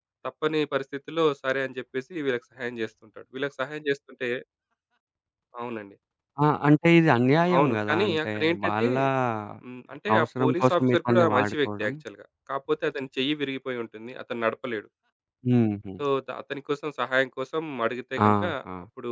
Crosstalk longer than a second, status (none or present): present